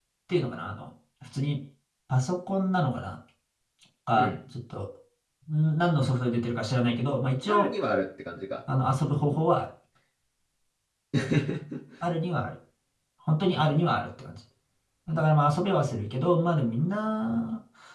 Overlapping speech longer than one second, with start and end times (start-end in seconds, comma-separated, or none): none